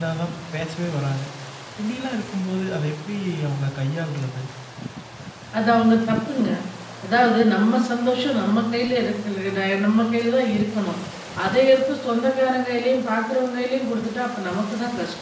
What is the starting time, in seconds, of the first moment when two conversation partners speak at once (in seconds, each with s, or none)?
none